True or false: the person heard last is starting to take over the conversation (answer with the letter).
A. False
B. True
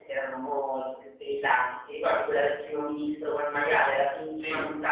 A